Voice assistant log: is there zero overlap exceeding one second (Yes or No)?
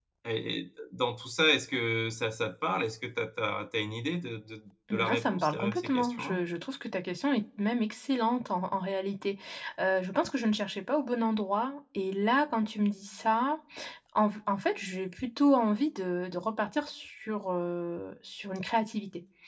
No